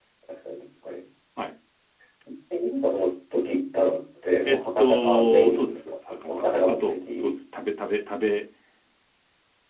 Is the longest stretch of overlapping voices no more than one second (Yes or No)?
No